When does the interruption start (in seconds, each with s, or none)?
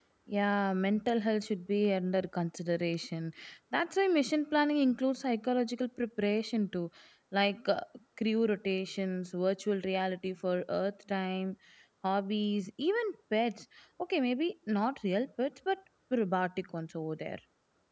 none